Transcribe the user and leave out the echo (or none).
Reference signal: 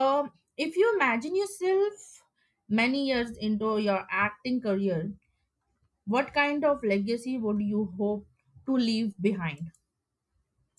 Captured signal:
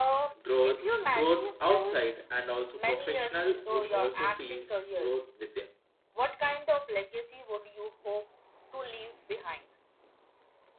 growth growth outside and also professional would also feels growth within